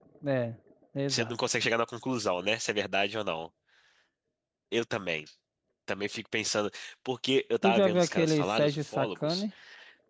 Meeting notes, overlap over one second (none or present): present